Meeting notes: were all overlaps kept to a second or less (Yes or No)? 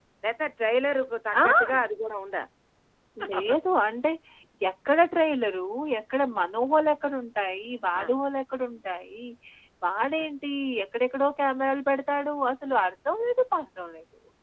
Yes